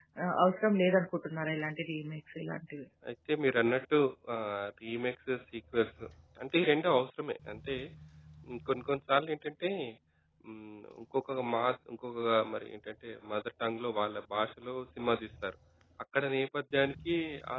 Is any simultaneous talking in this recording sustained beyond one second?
No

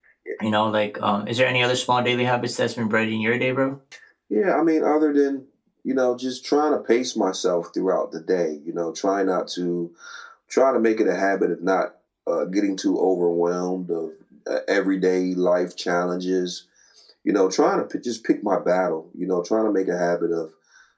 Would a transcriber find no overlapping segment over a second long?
Yes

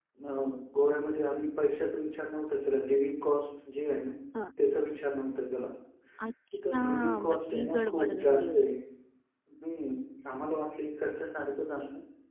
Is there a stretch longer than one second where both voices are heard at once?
Yes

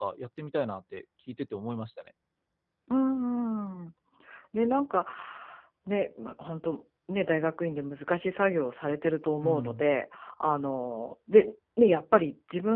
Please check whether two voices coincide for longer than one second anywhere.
No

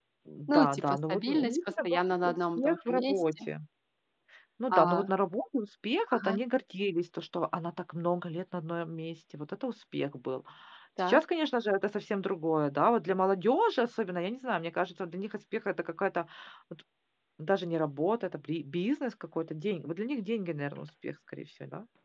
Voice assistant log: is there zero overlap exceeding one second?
No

